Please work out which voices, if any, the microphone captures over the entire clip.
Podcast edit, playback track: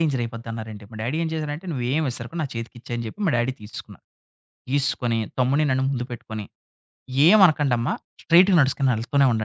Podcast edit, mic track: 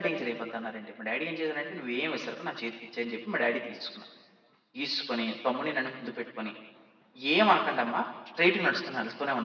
echo only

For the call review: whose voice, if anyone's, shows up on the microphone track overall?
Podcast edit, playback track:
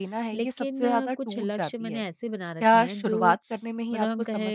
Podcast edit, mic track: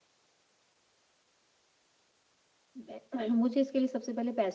user only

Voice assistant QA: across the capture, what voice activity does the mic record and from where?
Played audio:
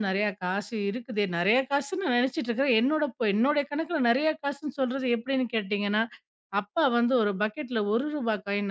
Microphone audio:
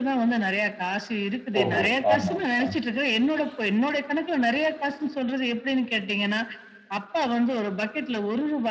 both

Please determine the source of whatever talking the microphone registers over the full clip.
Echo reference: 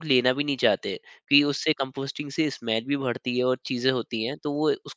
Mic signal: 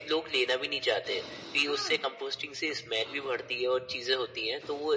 both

